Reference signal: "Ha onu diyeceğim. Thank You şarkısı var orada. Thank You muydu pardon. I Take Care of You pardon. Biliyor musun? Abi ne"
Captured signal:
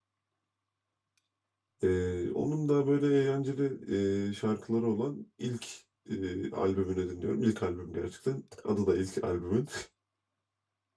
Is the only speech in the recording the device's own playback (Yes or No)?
No